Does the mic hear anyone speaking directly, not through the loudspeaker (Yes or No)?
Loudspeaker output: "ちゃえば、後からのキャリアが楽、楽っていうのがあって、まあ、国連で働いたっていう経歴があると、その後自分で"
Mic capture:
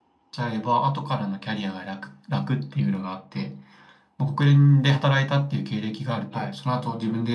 Yes